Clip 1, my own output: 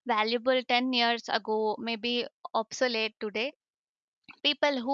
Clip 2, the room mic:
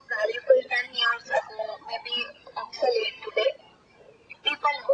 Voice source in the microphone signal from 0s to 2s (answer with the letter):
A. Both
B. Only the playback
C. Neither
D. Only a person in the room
B